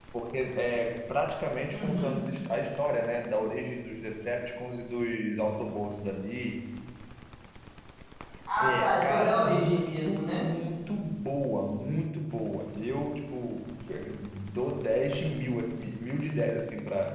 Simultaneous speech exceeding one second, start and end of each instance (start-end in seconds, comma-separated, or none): 8.6-10.4